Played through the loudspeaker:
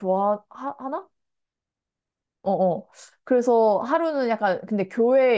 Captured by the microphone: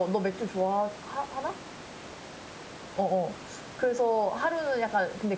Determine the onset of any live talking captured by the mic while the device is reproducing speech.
none

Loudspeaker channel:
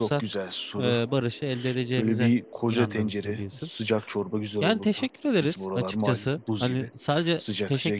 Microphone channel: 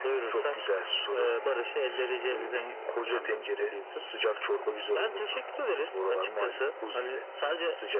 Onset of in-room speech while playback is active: none

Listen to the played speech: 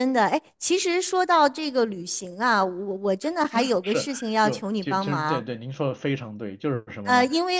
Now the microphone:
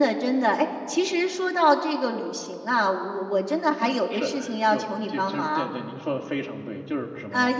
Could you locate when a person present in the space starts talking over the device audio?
none

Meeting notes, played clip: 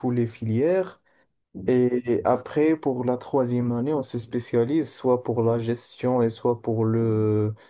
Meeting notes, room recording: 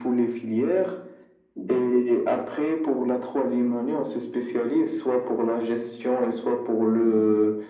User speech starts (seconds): none

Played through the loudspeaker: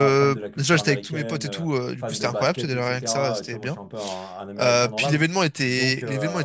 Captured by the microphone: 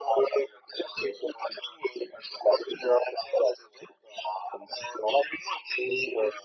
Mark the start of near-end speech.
none

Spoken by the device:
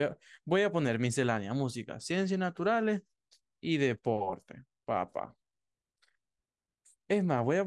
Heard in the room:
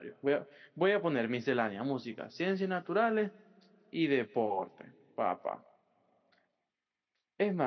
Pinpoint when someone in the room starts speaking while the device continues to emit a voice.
none

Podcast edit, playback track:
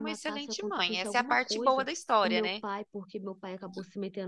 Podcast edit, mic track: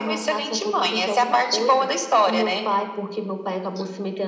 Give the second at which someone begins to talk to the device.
none

